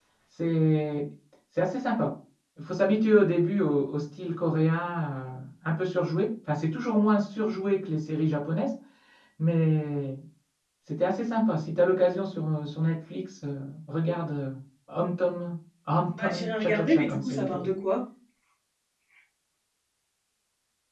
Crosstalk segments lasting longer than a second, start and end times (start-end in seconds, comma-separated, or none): 16.2-17.7